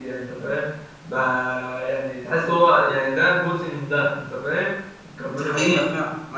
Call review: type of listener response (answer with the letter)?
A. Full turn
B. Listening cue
A